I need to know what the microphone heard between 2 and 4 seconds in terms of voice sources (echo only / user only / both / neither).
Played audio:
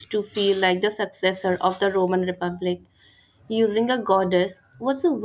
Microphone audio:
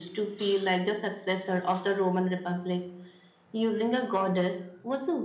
echo only